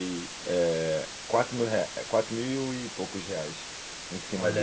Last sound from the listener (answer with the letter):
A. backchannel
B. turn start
B